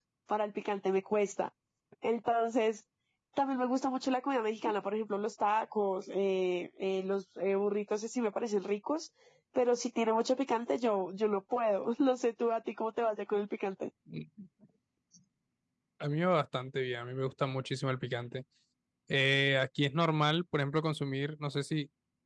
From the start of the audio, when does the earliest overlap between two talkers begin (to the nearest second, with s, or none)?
none